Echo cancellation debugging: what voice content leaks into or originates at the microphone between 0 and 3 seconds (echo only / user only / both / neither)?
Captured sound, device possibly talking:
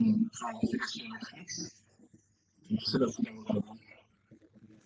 echo only